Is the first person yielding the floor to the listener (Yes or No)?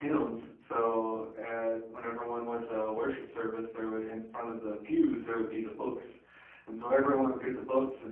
No